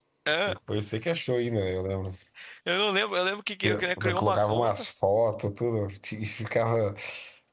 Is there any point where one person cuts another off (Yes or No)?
Yes